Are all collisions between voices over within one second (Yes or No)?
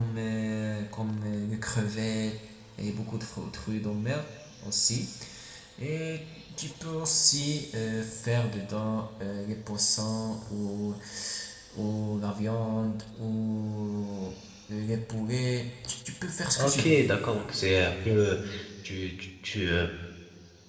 Yes